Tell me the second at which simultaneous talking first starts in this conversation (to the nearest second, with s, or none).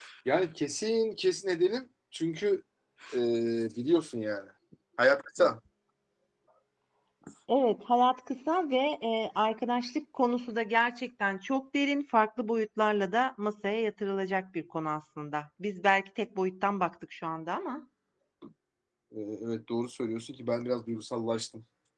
none